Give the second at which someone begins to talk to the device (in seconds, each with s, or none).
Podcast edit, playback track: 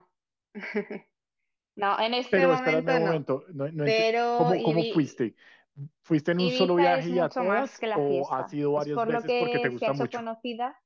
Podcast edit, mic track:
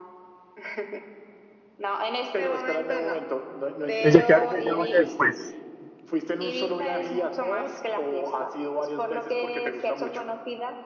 4.0 s